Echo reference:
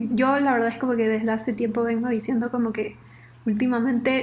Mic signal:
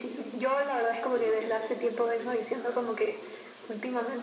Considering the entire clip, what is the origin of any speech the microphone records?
both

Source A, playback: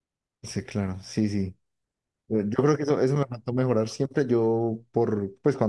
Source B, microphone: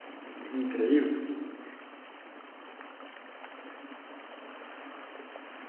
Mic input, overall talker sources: user only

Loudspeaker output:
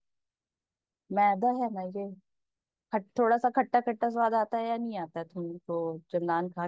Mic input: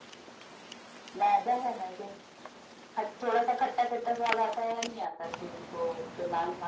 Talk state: echo only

